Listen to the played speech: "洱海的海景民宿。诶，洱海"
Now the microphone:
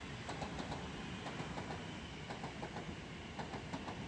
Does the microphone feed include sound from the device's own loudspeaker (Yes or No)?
No